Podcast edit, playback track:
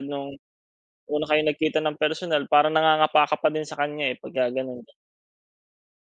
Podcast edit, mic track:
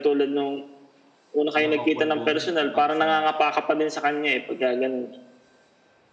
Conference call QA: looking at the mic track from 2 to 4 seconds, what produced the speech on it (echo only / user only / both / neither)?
both